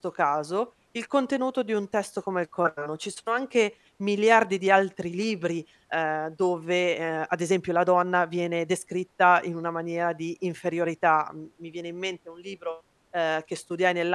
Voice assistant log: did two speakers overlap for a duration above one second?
No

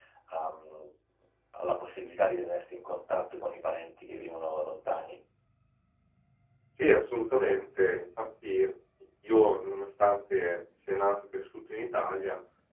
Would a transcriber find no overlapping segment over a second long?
Yes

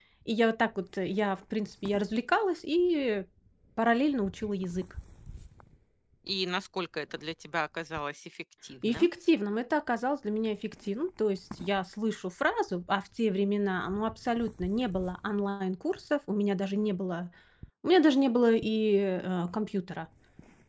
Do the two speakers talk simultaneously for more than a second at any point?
No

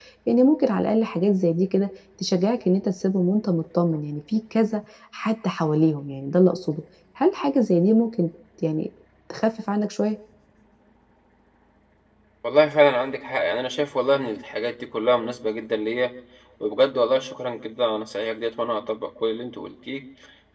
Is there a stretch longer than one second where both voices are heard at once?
No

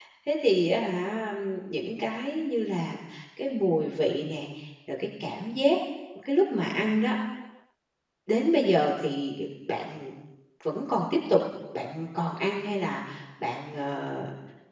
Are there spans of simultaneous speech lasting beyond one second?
No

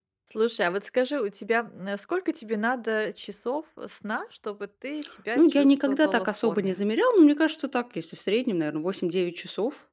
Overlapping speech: Yes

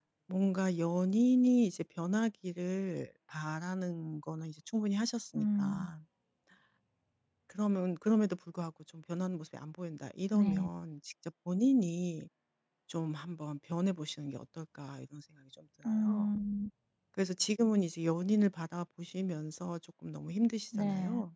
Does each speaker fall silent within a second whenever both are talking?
Yes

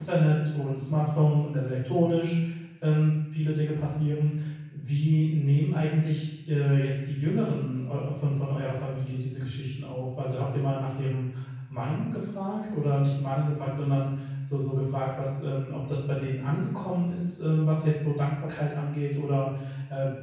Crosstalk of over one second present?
No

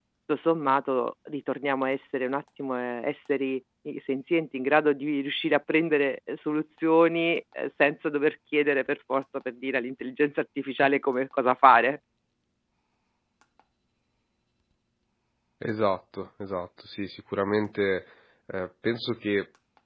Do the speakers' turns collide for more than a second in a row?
No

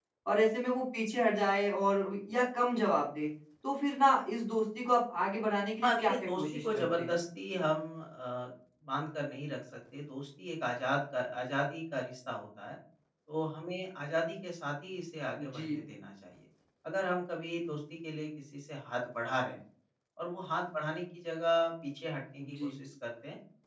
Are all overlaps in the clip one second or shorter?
No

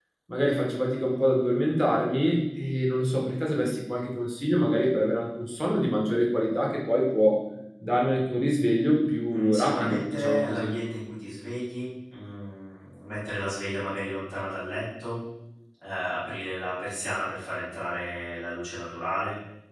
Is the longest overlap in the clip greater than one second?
Yes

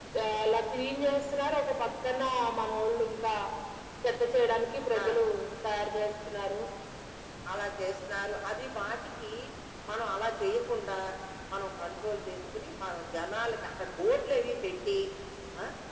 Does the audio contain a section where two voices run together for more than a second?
No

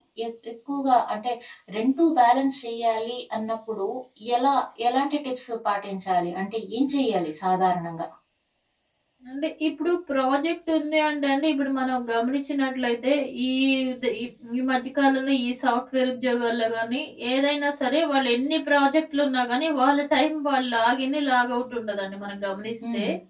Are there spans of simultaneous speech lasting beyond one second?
No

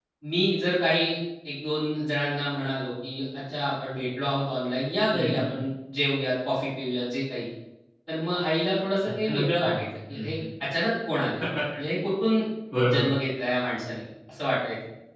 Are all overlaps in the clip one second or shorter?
No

